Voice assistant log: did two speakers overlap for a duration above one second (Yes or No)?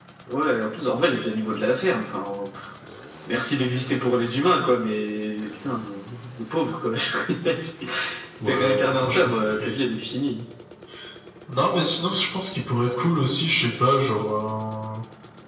Yes